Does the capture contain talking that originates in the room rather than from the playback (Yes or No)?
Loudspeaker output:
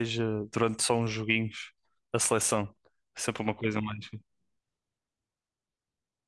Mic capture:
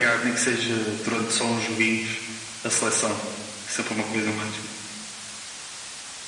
No